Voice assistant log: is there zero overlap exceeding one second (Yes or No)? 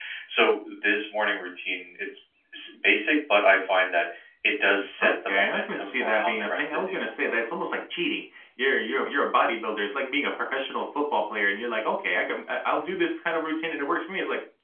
No